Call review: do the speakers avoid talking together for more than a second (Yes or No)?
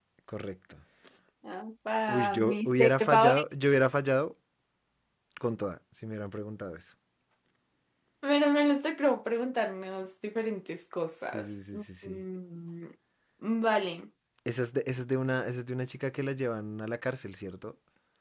No